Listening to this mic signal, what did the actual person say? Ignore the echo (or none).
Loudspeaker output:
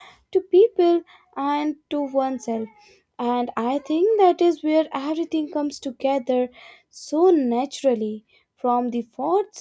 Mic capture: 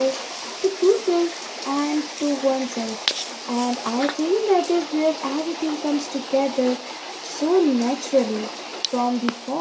none